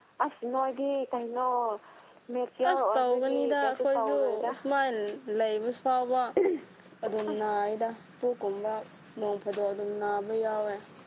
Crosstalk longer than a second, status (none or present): present